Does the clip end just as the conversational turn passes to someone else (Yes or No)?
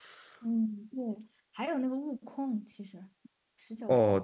Yes